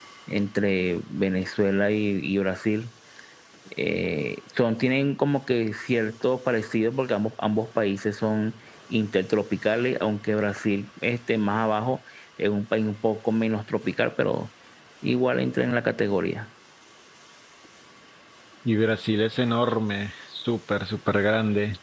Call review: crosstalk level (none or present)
none